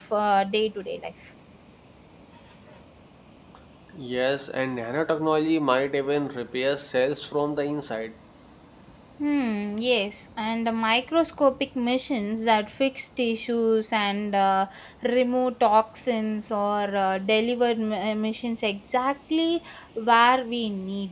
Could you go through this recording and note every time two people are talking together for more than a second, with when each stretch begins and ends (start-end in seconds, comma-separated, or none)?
none